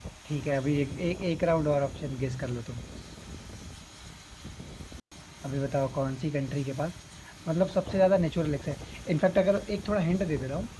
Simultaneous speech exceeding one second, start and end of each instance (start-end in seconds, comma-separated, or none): none